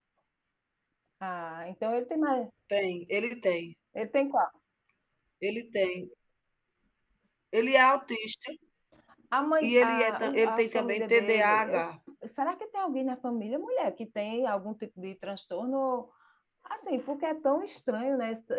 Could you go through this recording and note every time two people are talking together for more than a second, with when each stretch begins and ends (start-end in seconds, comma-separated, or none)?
9.6-11.8